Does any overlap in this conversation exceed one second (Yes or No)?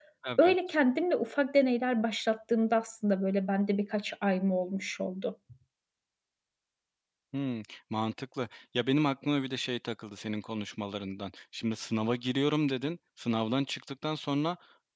No